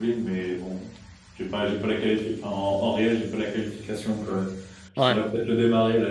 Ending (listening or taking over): listening